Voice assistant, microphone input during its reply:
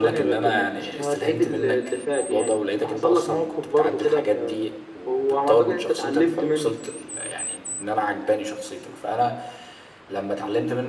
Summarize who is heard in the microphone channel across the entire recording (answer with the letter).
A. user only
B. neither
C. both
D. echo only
D